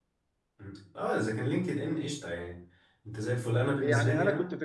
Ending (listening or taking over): taking over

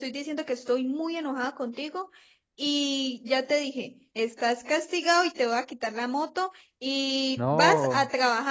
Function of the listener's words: listening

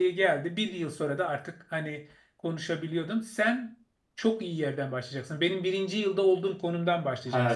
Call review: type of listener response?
taking over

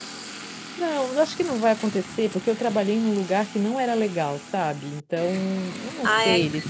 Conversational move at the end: taking over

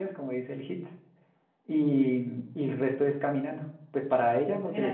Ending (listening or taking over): listening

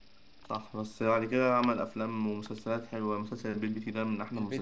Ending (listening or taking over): taking over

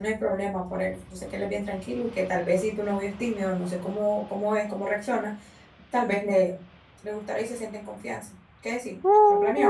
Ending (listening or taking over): taking over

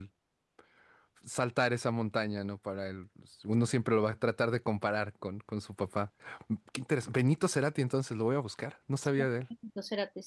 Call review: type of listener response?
taking over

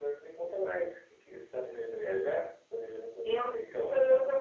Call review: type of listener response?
taking over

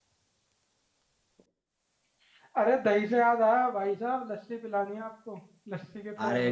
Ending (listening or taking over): taking over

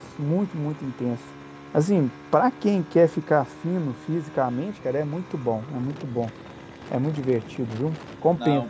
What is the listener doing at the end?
listening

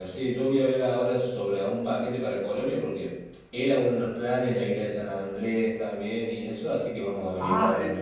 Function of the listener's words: taking over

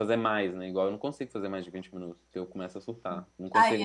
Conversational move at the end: taking over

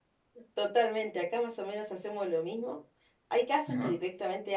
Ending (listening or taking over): listening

